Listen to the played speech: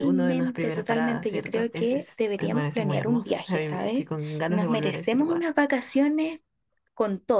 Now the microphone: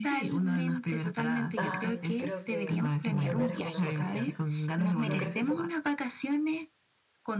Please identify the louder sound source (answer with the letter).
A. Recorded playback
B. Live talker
A